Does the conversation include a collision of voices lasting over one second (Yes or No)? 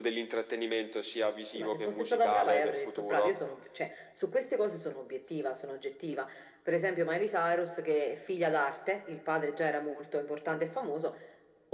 Yes